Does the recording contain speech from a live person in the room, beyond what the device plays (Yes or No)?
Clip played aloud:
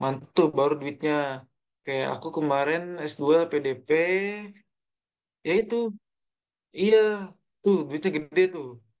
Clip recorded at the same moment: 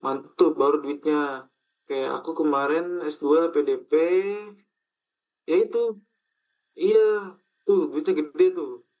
No